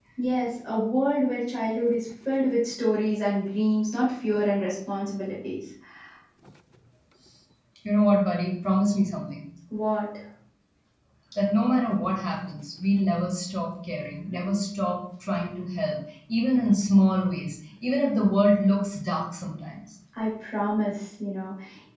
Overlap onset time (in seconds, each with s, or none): none